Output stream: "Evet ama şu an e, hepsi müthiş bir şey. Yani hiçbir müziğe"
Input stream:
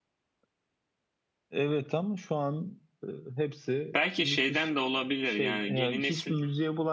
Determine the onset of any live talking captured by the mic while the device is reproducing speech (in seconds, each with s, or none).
3.9 s